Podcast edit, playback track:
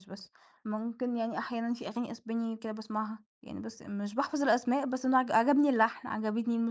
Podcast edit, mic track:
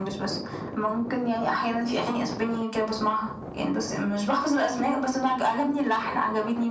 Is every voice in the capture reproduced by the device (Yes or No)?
Yes